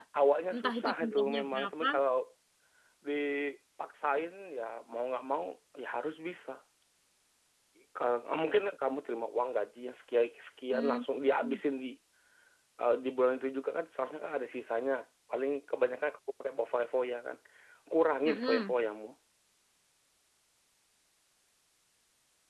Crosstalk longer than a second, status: present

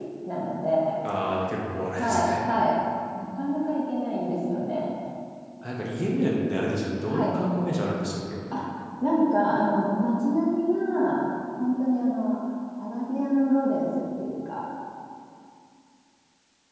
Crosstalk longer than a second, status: none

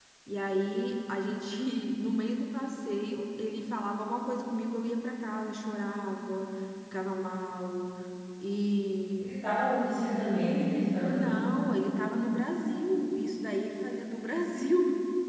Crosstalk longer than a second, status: none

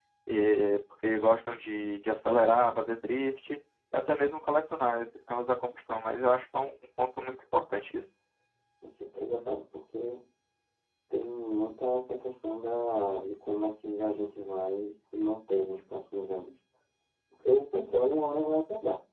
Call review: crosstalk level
none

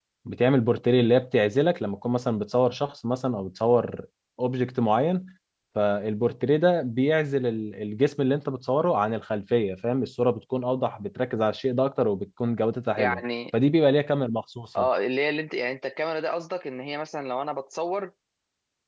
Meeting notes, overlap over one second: none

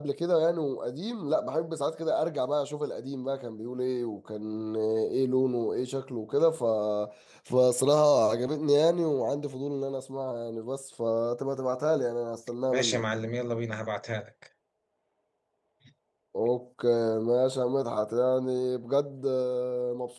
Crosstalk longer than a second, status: none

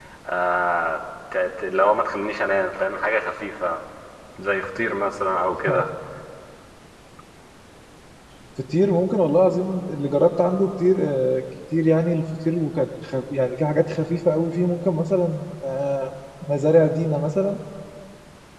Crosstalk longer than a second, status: none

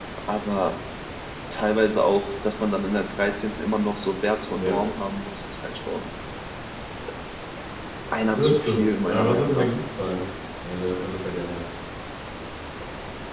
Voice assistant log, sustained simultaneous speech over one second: present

